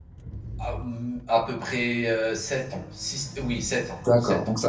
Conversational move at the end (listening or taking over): taking over